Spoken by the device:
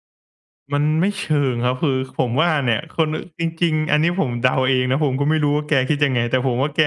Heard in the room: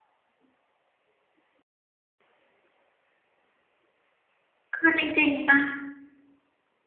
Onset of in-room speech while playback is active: 4.7 s

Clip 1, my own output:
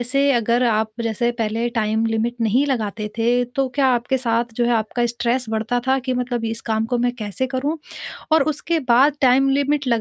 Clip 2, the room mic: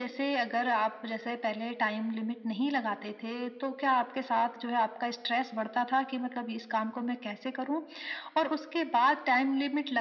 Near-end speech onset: none

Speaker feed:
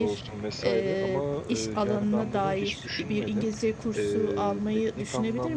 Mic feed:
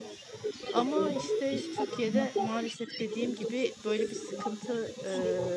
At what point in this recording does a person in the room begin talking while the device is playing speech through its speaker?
0.7 s

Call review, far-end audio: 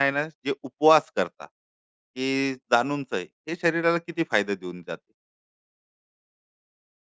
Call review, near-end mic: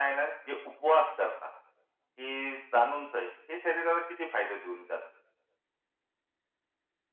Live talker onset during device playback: none

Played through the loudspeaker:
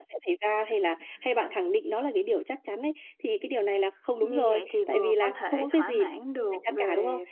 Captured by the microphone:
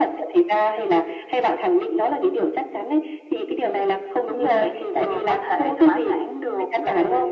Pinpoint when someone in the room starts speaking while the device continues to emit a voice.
none

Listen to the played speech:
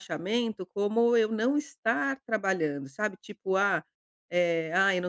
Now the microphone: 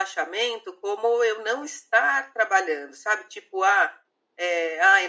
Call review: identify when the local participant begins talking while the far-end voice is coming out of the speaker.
none

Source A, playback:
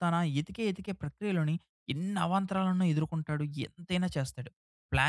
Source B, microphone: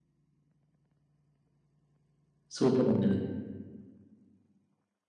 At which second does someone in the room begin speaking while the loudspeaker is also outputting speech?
2.6 s

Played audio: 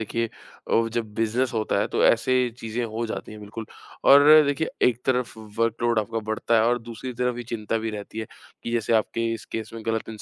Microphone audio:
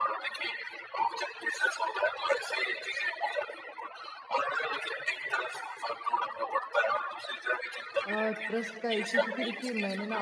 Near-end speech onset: 8.0 s

